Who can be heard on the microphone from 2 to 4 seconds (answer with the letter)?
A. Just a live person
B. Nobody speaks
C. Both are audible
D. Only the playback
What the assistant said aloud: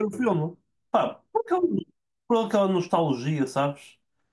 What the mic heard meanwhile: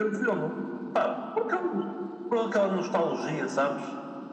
D